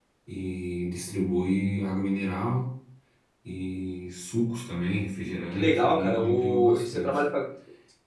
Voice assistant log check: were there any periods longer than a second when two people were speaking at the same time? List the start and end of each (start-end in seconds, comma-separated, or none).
5.5-7.2